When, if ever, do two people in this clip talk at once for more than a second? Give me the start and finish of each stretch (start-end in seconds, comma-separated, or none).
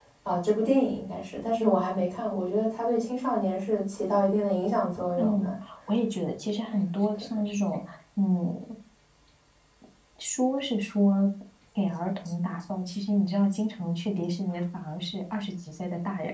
none